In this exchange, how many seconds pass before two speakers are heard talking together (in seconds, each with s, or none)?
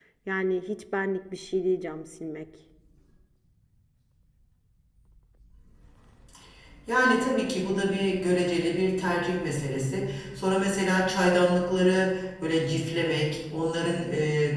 none